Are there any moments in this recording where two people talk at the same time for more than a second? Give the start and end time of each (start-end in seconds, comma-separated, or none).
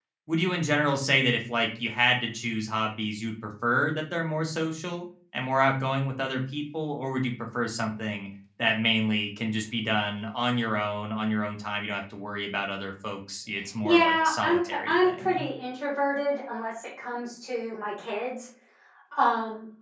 13.8-15.4